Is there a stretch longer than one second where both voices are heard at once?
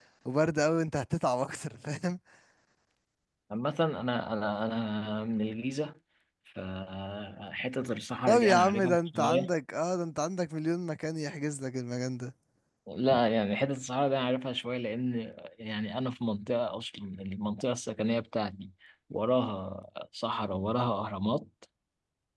Yes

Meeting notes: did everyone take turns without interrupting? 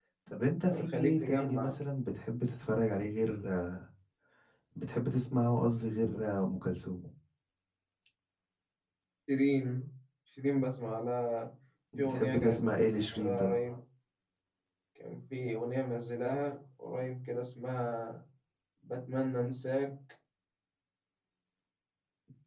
No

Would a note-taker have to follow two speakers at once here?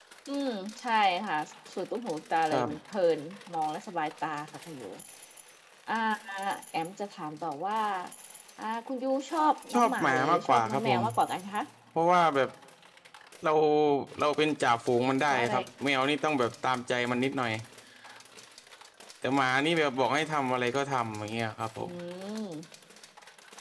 Yes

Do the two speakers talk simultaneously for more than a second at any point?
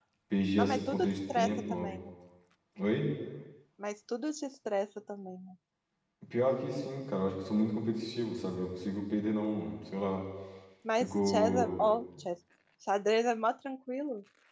Yes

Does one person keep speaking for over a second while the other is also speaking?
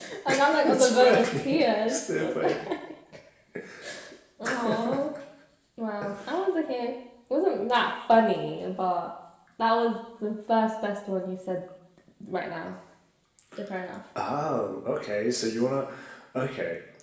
Yes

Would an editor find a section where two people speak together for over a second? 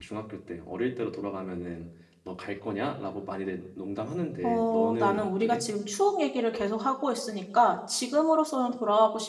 Yes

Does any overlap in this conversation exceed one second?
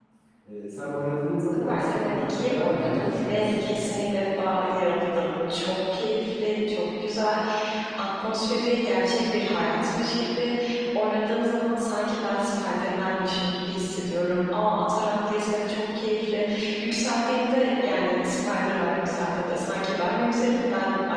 Yes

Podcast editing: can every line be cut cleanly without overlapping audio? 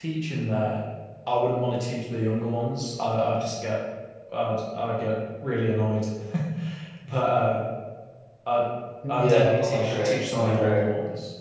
No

